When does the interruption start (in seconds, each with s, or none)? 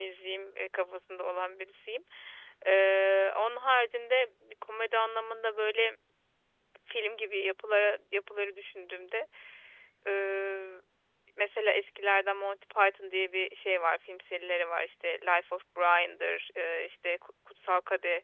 none